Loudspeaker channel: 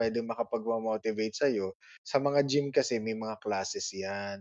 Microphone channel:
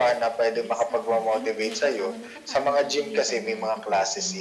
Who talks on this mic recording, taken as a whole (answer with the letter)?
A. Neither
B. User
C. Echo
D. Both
D